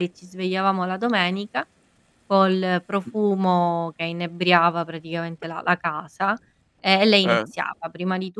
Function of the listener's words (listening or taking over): listening